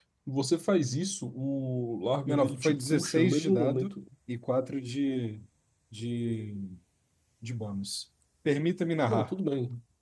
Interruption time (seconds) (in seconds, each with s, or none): 2.3 s